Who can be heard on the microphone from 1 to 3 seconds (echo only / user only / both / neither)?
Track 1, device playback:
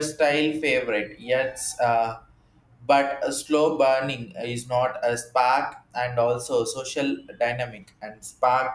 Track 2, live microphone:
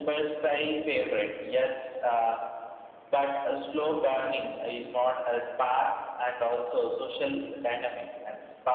echo only